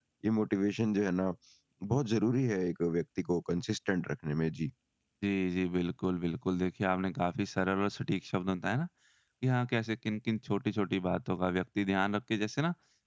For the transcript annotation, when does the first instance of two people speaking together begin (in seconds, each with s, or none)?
none